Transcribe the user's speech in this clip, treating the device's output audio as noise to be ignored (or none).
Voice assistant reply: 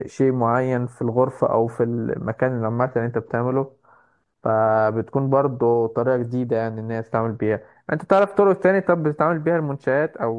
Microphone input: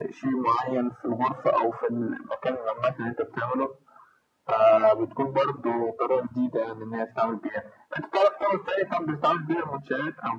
none